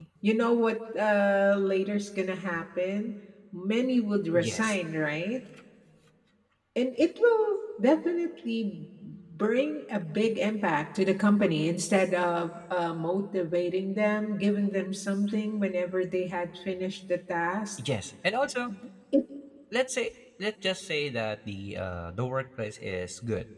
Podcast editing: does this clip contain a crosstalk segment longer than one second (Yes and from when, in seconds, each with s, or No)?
No